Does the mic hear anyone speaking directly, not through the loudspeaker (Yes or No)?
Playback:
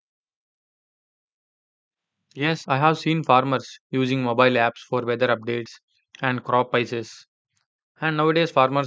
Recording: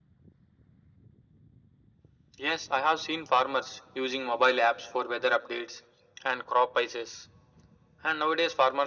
No